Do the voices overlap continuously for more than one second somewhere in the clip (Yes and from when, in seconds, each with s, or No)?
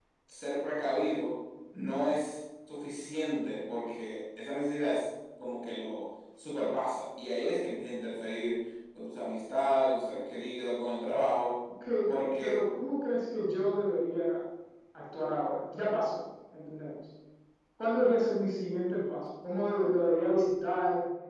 No